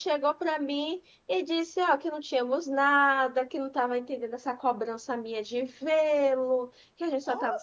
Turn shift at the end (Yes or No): No